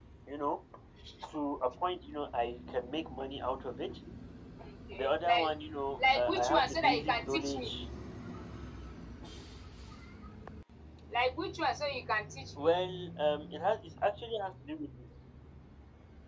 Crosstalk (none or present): present